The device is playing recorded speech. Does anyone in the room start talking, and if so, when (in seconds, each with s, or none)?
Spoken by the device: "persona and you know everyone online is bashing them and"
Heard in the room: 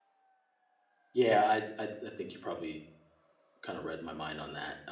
1.1 s